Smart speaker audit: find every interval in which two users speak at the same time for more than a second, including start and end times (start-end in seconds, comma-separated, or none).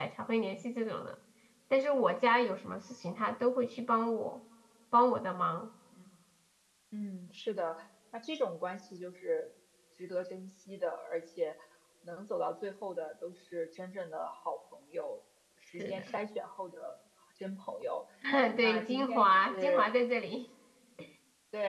18.6-19.9